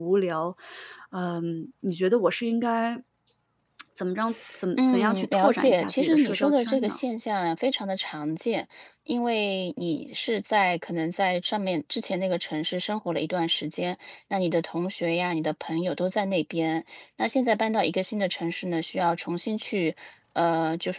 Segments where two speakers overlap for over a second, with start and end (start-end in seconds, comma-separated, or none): 4.8-7.0